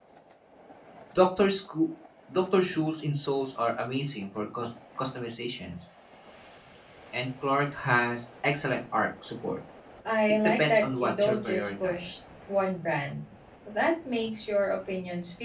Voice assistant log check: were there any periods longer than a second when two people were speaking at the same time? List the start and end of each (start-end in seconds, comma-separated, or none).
10.4-12.0